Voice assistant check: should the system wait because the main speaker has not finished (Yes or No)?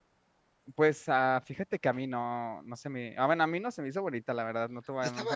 No